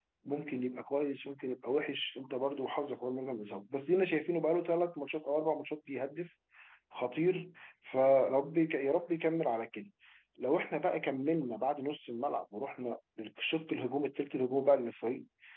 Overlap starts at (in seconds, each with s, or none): none